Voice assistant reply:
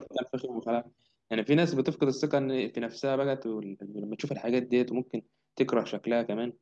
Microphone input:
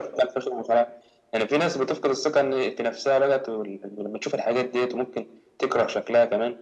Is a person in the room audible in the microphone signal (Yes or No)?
No